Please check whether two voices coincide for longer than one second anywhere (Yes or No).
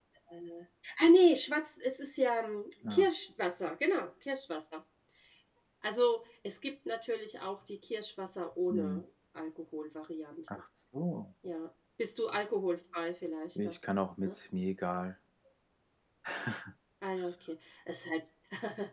No